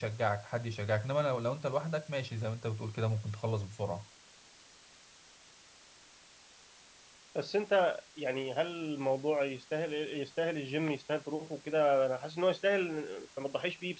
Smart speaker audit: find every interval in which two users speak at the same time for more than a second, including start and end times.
none

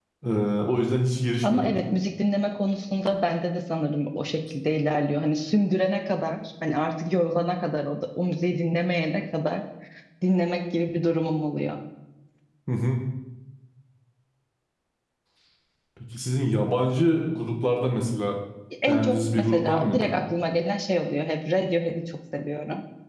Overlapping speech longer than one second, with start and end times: 18.9-20.1

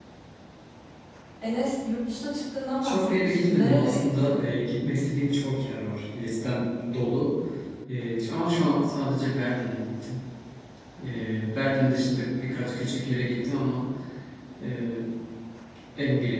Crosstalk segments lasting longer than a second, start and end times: 2.8-4.4

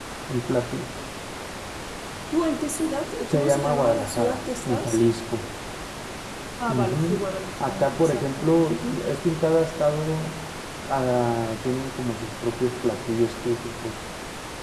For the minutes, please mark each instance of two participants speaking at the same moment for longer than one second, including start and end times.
3.3-5.0, 7.7-9.0

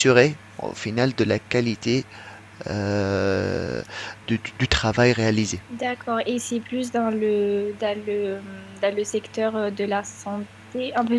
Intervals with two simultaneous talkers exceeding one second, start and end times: none

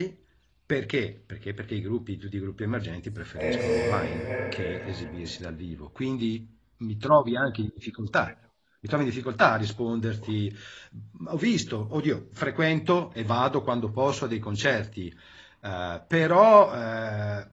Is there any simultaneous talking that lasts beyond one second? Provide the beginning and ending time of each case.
3.4-4.9

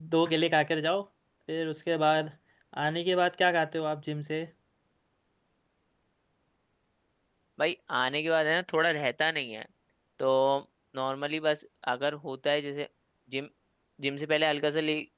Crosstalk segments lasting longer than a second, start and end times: none

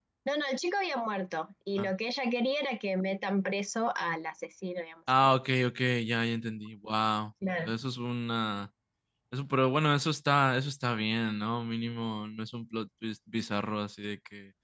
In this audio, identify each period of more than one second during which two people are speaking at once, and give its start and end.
none

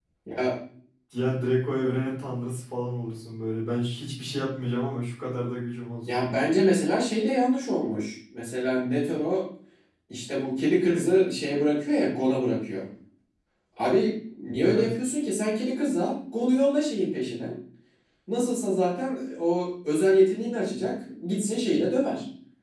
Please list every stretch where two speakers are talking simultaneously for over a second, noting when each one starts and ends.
none

